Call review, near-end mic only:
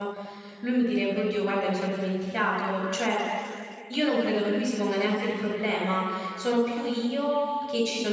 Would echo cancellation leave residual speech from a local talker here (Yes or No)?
Yes